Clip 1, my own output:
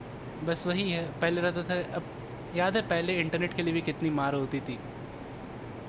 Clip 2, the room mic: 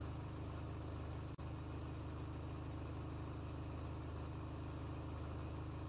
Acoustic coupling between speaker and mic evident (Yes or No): No